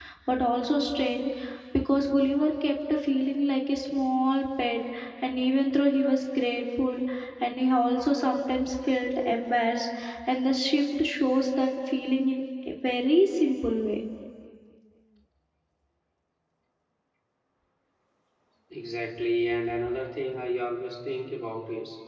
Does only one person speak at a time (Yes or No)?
Yes